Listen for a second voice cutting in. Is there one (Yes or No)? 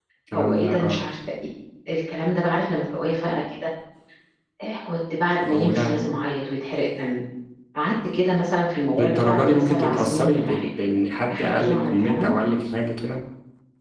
Yes